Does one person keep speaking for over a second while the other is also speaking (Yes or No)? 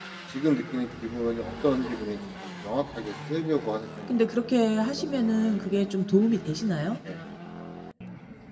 No